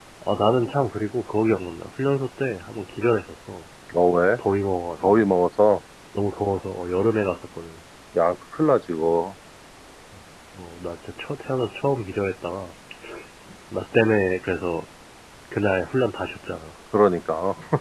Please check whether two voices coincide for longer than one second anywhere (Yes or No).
No